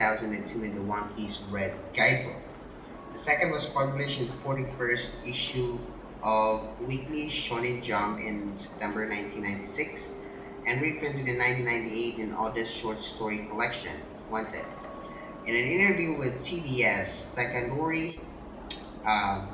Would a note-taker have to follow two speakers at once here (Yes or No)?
No